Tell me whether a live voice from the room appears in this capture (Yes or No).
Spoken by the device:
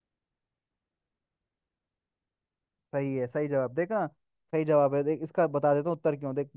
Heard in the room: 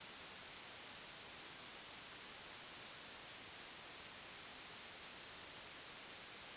No